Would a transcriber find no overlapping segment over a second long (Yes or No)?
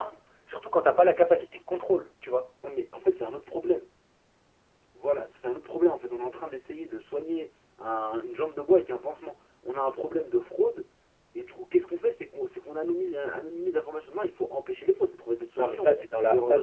Yes